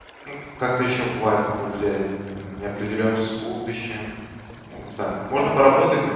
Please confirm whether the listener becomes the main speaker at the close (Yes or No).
No